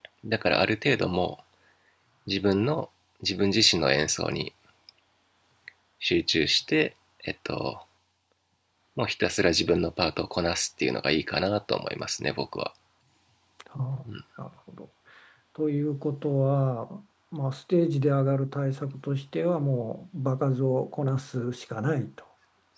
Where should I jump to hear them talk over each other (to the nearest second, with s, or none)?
none